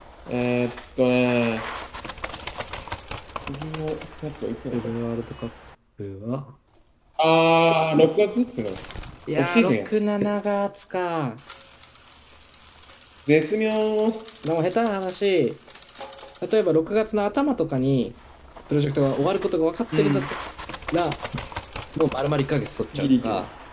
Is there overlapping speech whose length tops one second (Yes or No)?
No